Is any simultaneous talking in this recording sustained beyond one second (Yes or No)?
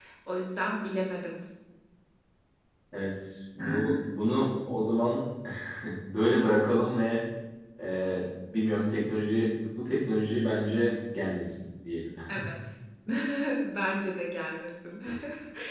No